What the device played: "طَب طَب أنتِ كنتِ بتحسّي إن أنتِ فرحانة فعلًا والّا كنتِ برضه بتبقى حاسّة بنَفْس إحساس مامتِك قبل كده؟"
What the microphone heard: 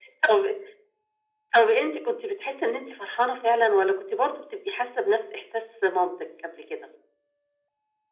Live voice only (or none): none